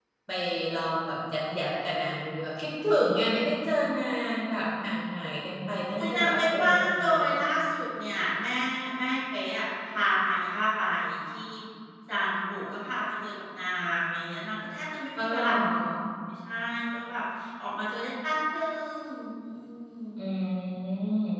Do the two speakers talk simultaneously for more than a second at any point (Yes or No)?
Yes